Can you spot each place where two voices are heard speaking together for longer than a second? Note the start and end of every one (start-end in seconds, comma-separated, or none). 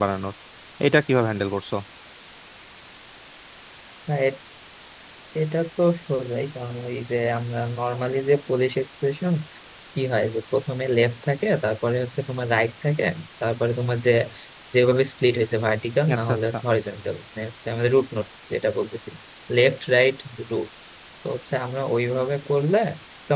none